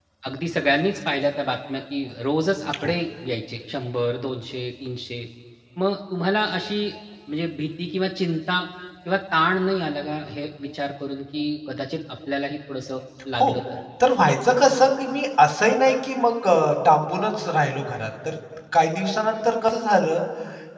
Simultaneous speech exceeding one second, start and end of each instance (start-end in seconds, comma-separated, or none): none